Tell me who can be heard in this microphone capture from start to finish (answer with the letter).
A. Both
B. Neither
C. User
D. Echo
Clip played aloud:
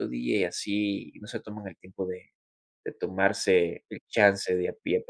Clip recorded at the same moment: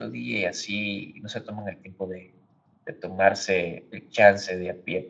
D